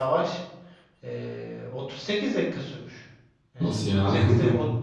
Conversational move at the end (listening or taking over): listening